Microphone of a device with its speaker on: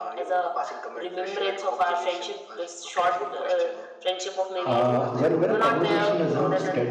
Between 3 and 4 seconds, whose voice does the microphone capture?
echo only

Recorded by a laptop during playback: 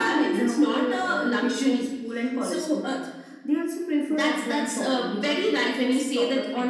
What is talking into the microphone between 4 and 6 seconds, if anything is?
echo only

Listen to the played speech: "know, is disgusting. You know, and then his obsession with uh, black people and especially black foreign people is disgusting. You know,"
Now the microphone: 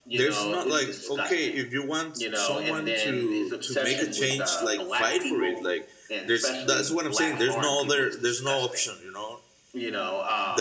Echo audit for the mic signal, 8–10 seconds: both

